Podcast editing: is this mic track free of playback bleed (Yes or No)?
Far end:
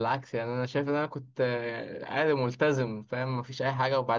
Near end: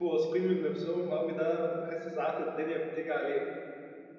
Yes